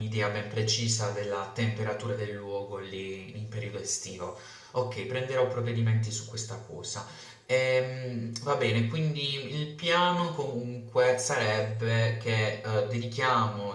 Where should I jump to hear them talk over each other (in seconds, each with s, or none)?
none